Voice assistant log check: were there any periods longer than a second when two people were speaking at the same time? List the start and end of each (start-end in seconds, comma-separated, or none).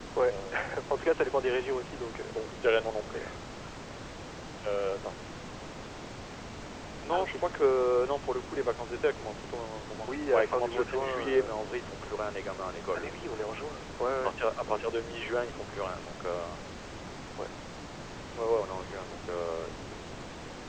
10.1-11.5